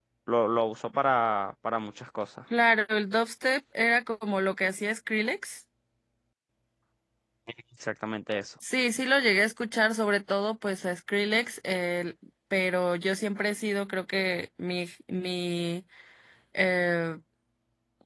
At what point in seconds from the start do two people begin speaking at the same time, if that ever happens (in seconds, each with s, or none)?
none